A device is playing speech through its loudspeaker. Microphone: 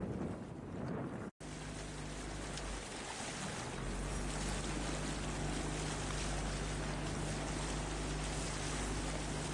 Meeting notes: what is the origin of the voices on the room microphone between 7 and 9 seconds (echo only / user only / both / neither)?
neither